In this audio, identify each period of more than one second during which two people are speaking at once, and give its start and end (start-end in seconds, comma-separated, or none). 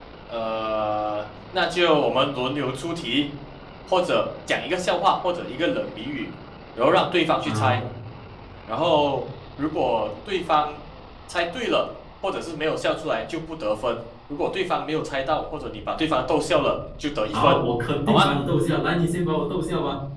none